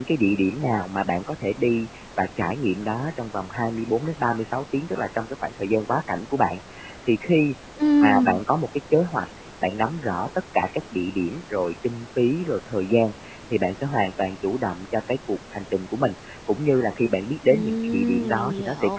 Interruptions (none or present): present